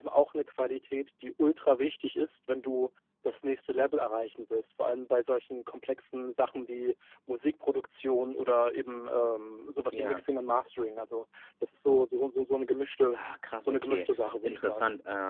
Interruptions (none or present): present